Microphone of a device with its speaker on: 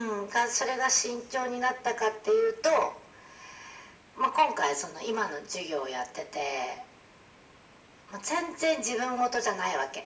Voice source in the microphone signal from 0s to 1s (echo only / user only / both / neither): echo only